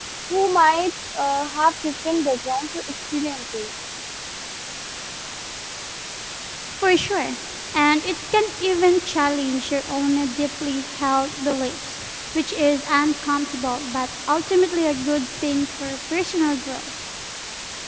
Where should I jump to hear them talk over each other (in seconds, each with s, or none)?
none